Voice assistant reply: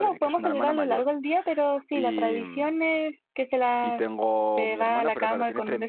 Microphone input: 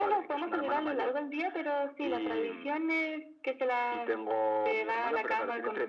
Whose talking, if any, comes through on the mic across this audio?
echo only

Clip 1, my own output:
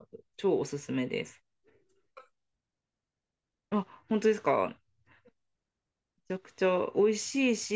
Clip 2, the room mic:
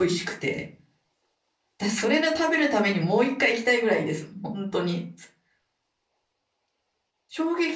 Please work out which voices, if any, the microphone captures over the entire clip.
user only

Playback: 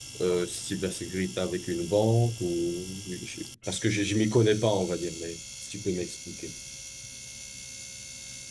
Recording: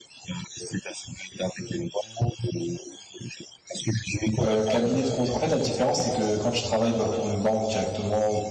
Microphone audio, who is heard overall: both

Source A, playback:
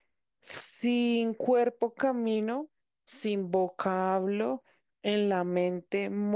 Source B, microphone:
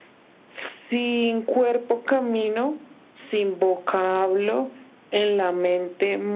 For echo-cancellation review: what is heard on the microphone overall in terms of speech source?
echo only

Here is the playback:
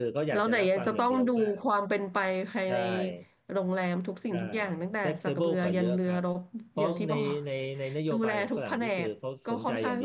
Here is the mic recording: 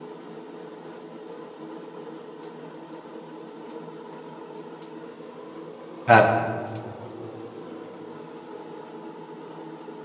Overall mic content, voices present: user only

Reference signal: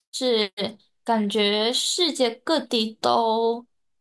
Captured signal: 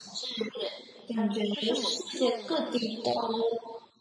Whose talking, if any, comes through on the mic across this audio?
both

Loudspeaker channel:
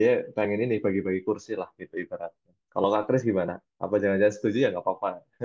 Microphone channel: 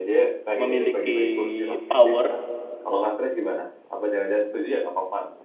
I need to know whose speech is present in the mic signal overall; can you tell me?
both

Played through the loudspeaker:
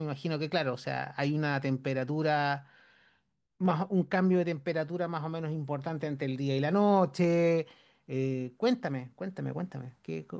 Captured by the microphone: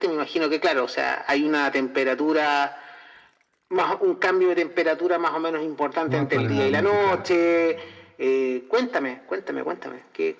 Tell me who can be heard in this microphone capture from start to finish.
both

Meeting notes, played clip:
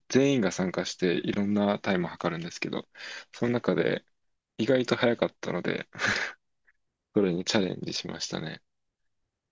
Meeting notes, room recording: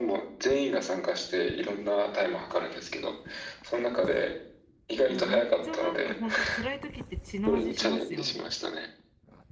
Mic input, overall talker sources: both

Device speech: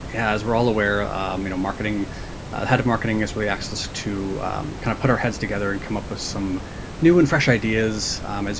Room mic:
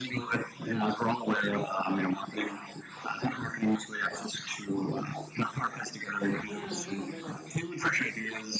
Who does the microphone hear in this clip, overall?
both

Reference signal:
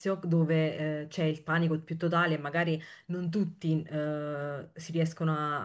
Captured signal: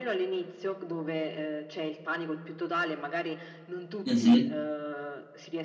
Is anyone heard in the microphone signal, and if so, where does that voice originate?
both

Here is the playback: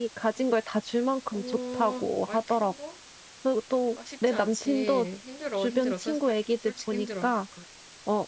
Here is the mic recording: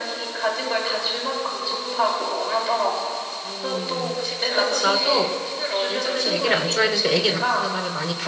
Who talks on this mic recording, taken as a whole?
both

